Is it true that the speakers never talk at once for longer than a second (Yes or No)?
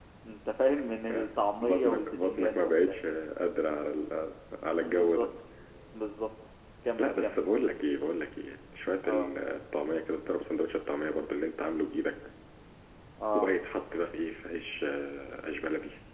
No